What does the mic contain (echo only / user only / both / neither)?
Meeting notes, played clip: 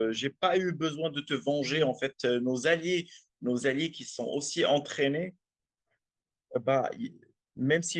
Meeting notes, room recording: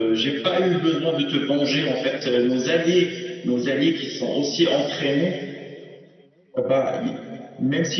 echo only